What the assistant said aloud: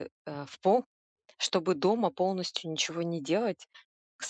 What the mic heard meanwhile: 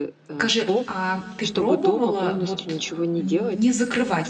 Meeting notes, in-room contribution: present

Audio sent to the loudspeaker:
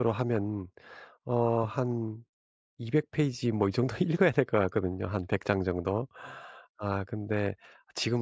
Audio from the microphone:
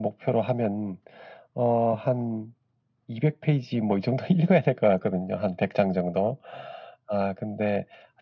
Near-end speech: none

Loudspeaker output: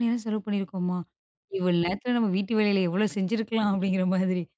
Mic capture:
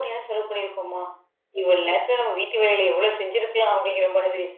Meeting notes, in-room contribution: none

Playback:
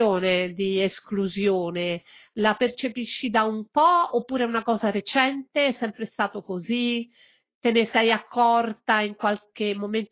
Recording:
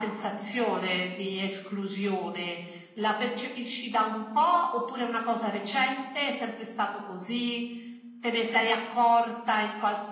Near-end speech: none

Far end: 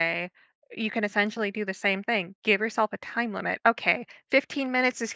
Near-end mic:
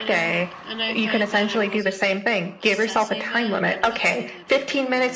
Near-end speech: present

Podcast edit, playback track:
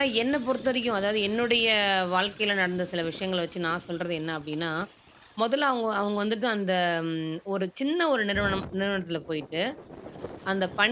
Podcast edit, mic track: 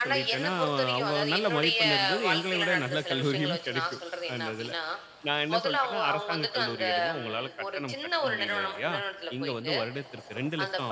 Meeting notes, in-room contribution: present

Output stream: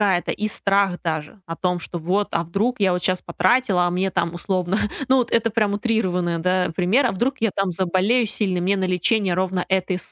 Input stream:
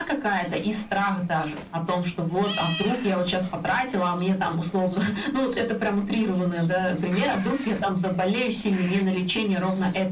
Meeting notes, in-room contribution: none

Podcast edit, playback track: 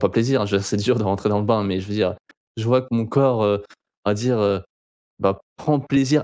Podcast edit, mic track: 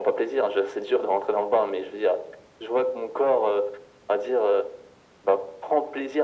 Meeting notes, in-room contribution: none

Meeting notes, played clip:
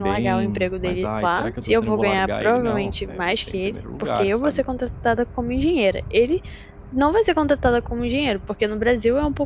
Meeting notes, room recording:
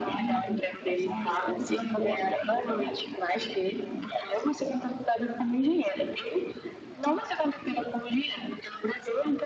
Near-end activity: none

